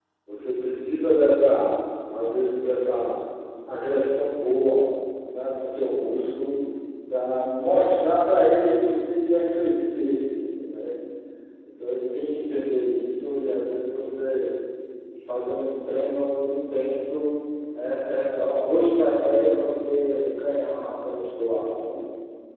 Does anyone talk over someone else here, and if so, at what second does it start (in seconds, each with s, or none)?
none